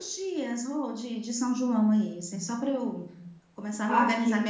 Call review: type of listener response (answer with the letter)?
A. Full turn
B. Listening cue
B